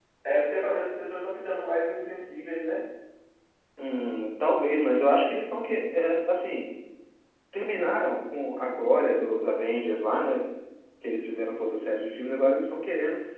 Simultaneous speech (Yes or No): No